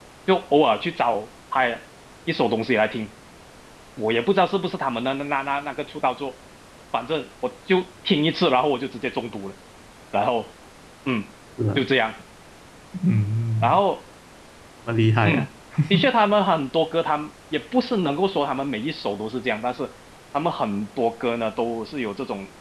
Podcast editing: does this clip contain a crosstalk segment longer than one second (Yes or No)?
No